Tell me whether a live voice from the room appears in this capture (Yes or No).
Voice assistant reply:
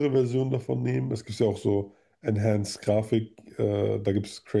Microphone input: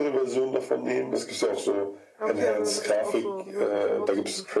Yes